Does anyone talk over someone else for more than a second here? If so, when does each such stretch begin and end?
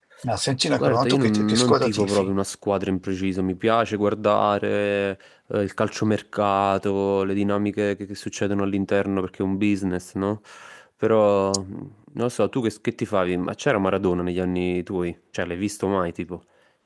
0.7-2.3

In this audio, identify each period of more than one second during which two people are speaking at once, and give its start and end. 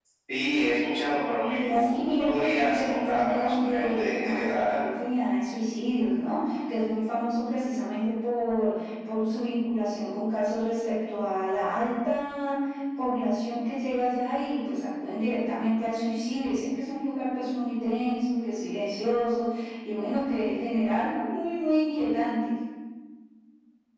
1.5-4.8

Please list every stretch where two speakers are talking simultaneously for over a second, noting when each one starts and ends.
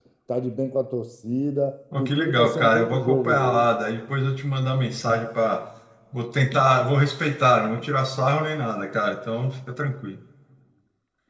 2.0-3.7

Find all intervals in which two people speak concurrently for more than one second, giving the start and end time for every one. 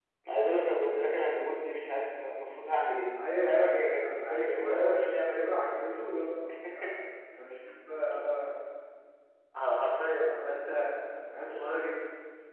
3.4-5.9

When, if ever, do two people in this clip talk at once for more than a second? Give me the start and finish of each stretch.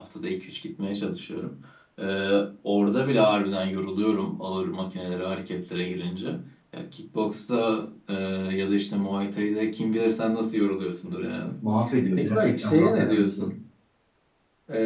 12.2-13.5

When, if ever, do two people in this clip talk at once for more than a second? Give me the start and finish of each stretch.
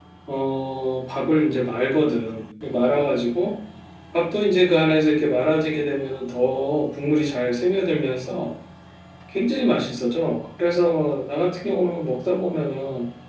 none

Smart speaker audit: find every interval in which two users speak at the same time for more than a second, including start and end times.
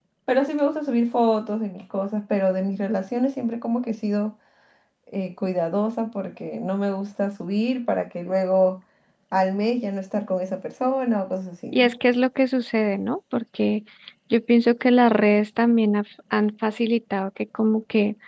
none

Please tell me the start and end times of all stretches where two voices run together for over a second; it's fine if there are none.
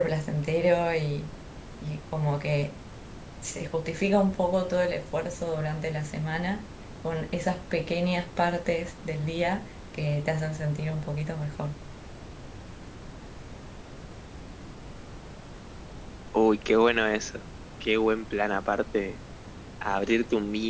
none

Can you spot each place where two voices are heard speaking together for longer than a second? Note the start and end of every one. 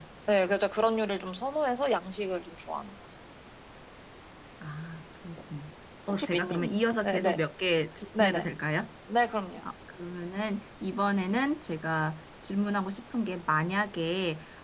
6.1-7.4

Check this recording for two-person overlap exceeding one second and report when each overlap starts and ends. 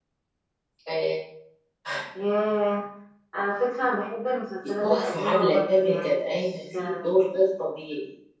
4.8-6.8

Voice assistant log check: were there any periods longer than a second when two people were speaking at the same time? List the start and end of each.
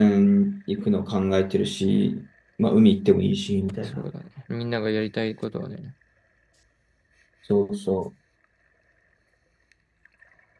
none

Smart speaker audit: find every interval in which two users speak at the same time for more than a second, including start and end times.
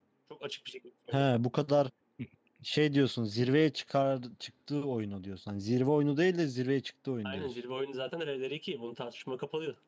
none

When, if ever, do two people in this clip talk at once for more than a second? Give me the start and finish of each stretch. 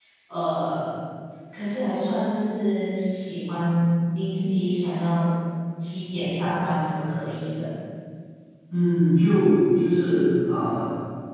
none

